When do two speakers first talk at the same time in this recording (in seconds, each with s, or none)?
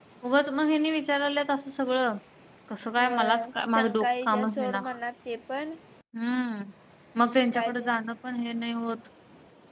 3.0 s